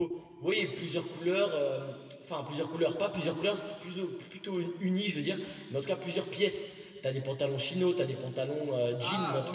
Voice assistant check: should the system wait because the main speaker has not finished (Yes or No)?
Yes